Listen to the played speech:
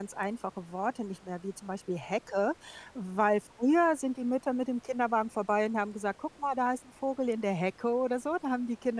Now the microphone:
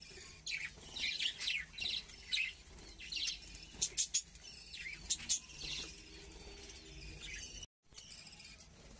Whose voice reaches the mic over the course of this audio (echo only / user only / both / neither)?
neither